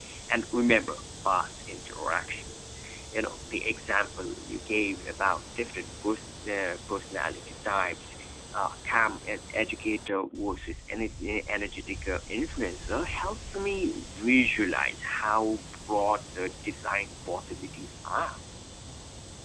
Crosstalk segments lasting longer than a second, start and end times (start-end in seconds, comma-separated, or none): none